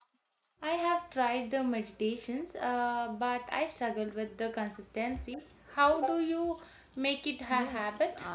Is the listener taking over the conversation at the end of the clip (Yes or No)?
Yes